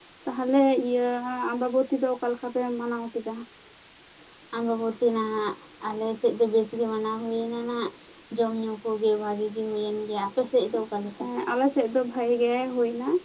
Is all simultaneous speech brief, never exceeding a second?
Yes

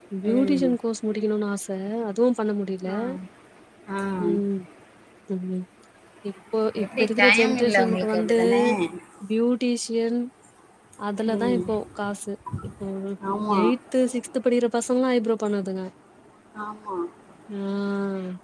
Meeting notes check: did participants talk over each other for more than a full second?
Yes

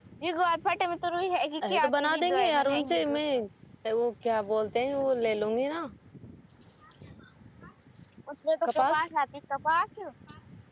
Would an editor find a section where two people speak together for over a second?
Yes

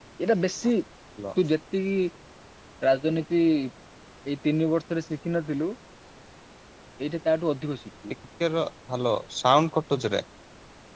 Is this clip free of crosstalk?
Yes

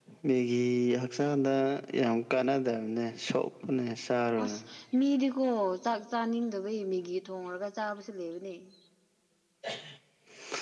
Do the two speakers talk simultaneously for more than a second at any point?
No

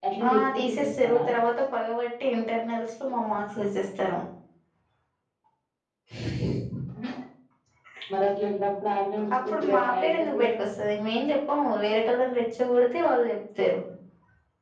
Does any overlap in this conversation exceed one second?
Yes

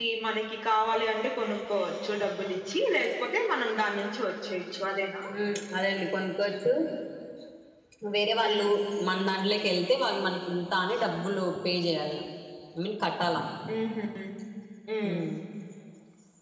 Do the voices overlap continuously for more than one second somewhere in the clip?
No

